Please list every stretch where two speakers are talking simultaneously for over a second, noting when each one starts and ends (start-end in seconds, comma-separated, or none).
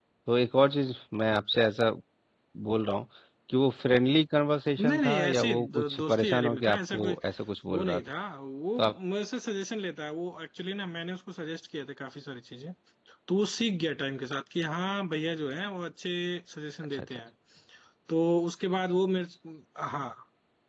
4.8-7.2